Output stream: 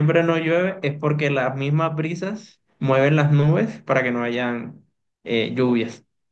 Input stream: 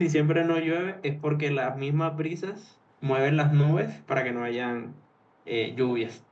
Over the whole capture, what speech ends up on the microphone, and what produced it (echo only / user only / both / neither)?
echo only